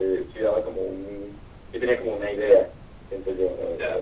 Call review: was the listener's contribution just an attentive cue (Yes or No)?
No